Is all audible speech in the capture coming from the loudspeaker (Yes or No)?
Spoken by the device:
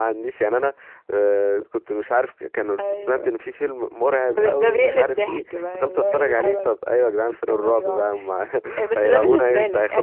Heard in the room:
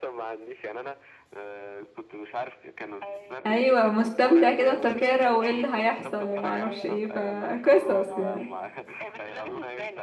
No